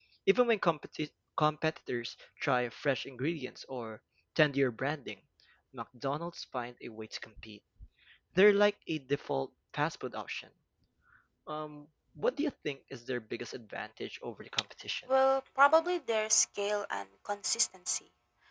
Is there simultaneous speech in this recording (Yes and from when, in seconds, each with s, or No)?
No